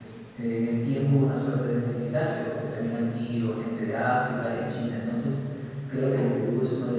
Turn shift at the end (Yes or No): No